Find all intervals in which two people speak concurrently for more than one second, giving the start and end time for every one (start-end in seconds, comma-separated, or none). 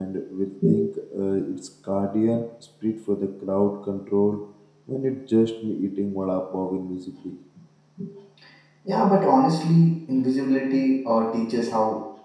none